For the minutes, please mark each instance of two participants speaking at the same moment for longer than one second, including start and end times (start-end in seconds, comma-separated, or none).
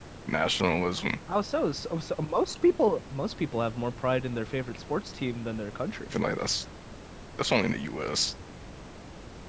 none